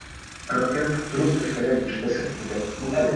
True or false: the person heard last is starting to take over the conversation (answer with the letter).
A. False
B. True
B